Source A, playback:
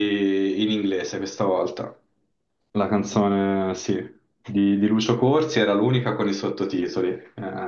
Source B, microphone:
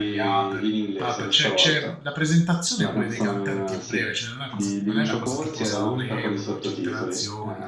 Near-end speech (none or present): present